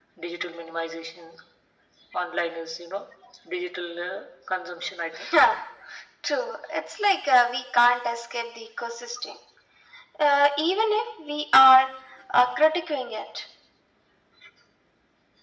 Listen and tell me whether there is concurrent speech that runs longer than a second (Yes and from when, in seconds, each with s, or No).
No